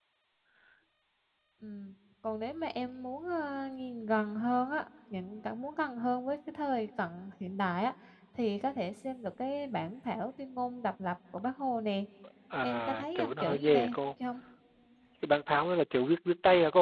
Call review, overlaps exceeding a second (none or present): present